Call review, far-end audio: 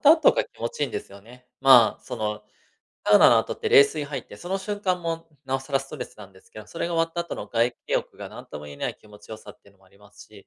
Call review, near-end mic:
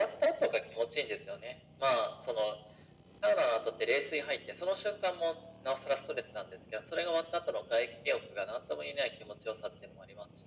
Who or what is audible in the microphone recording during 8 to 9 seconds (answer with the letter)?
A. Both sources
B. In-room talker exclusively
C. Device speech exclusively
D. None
C